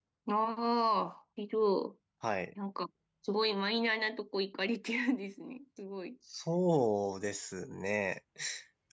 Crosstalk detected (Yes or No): No